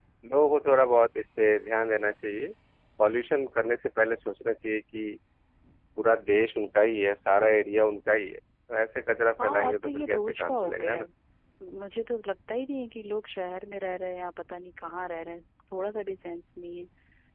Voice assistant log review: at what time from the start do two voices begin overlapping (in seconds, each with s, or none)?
9.4 s